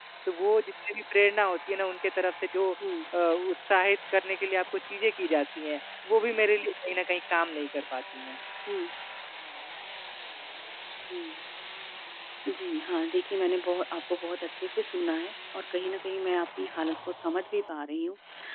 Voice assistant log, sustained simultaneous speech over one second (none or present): none